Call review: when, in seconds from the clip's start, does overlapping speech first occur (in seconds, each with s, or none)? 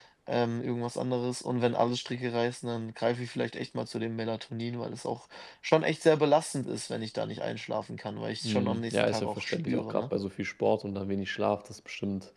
8.4 s